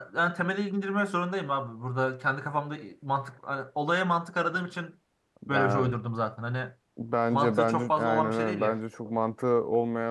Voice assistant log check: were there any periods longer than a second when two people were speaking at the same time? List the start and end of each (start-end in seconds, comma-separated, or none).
7.3-8.8